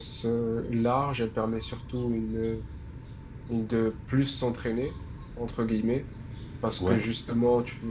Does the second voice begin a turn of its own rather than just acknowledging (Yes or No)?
No